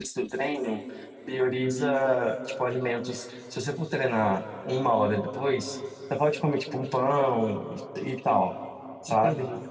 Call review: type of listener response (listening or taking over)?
listening